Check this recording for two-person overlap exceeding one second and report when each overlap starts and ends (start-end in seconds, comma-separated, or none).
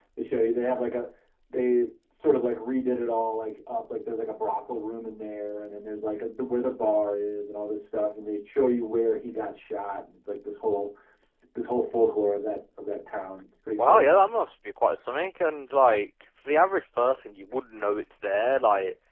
none